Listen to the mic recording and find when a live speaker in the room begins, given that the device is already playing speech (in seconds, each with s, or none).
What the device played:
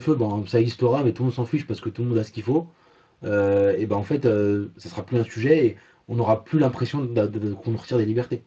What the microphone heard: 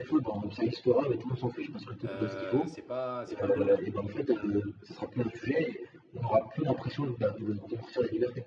2.0 s